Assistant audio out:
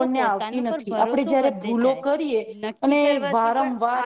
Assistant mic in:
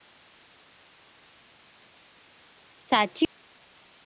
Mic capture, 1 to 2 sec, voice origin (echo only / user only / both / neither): neither